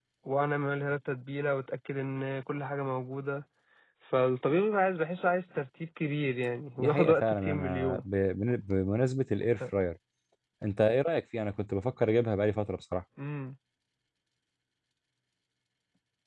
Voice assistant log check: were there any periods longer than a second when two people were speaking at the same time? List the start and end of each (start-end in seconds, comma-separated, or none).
6.8-8.0